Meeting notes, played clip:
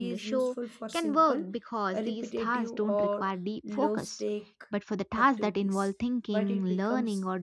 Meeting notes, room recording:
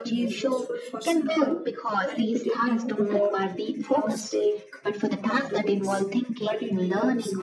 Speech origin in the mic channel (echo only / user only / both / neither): echo only